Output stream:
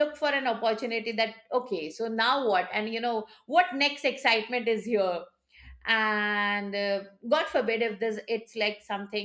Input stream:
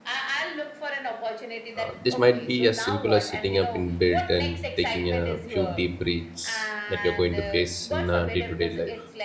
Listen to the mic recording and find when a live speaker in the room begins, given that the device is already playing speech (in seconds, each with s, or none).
1.8 s